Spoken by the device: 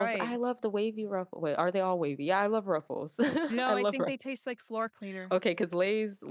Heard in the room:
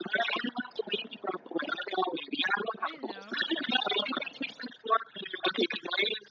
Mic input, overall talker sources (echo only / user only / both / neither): both